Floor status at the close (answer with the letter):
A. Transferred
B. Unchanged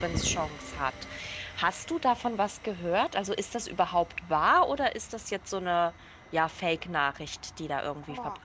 A